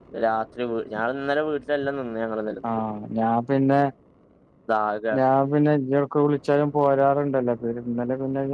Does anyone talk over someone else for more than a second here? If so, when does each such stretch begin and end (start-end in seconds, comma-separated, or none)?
none